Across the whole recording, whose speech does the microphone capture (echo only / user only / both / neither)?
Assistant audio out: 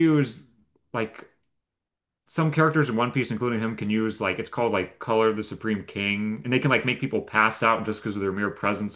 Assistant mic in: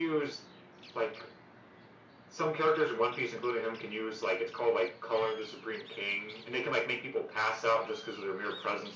echo only